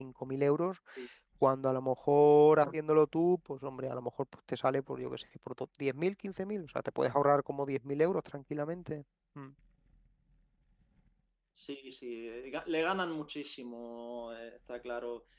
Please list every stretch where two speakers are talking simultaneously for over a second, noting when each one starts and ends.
none

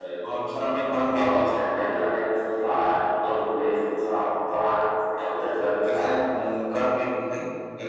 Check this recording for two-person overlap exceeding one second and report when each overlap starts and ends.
none

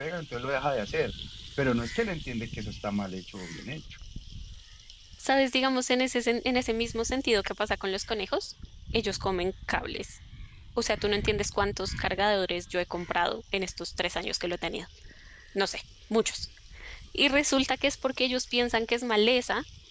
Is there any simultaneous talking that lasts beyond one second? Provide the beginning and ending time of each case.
none

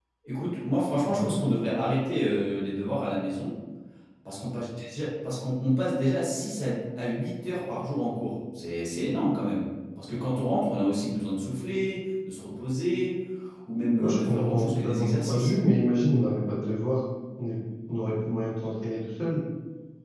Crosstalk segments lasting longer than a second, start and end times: 14.0-15.5

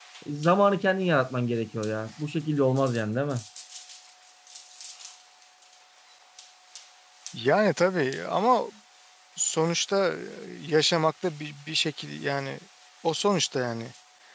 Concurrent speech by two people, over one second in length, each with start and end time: none

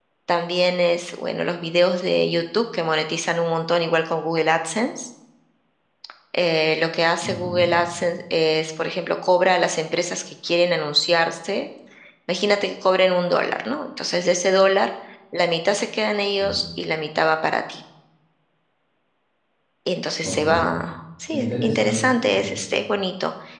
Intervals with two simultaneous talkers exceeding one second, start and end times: 21.3-22.5

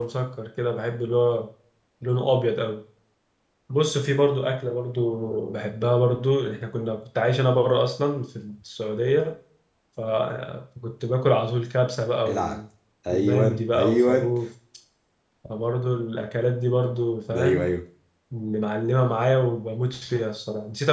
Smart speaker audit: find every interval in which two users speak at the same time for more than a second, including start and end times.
13.1-14.3

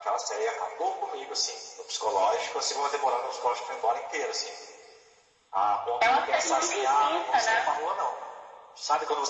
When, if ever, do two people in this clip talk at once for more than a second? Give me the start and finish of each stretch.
6.0-7.6

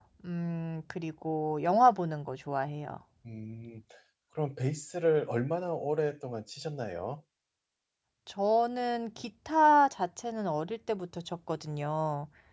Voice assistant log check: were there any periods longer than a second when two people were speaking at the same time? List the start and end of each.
none

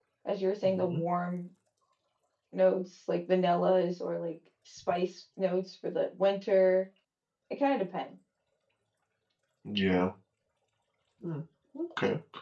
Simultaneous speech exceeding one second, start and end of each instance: none

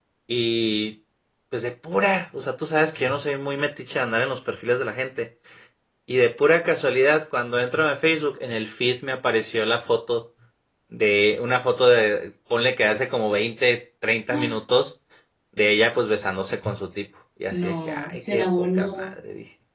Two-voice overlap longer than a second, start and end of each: 17.5-19.1

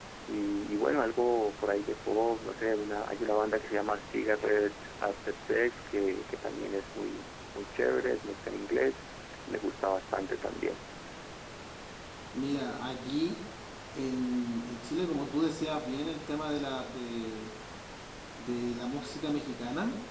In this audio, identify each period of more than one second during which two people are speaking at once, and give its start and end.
none

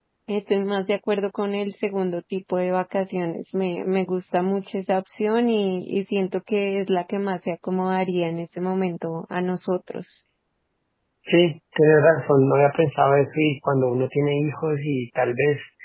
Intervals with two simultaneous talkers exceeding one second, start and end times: none

